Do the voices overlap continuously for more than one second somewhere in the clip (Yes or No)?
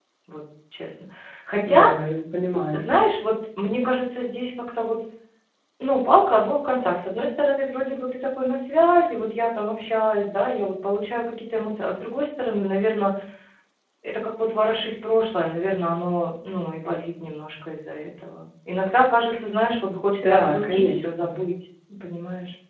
Yes